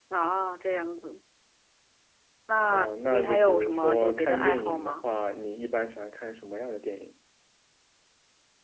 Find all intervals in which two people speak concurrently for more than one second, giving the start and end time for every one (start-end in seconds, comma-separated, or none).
2.7-5.0